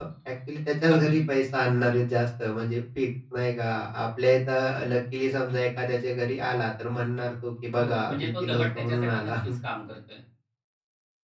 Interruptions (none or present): present